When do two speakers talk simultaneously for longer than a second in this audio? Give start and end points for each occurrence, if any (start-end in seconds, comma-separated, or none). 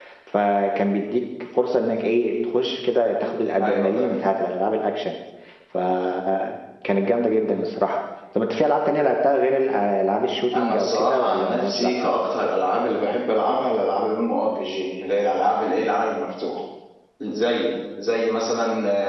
10.5-12.2